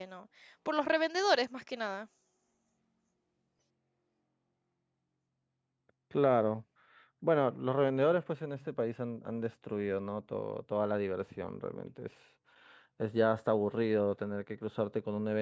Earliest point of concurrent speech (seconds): none

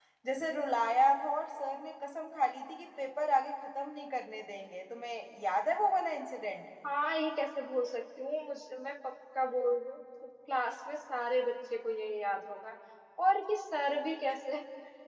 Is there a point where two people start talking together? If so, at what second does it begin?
none

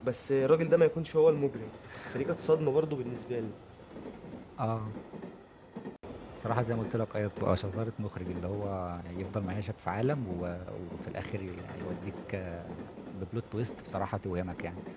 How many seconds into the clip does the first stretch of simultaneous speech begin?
none

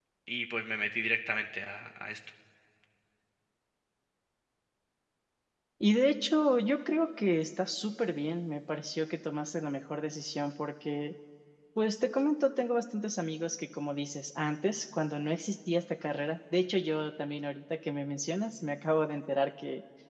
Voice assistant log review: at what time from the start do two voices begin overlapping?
none

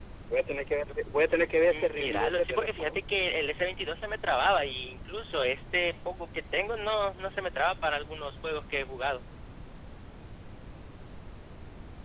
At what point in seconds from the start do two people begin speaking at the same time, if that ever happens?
2 s

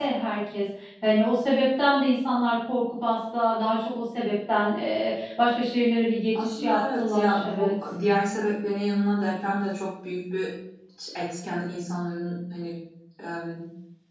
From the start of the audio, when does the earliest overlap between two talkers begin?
6 s

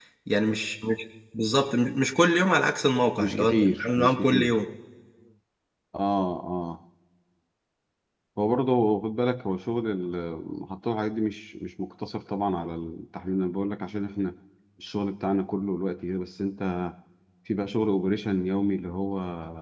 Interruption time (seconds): 3 s

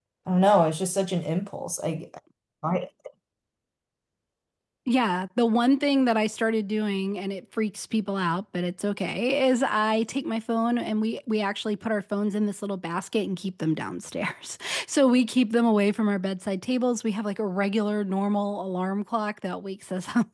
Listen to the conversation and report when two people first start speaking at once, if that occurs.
none

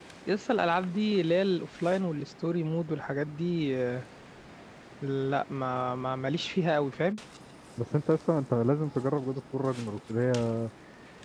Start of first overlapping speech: none

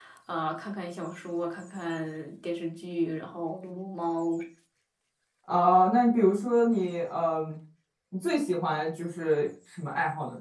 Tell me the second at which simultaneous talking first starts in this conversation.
none

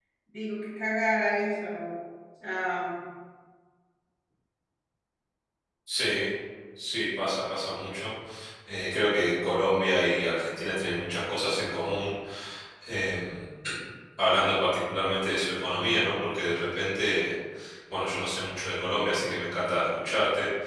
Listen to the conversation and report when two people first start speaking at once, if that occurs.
none

